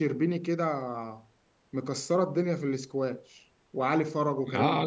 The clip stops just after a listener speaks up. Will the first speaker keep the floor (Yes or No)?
No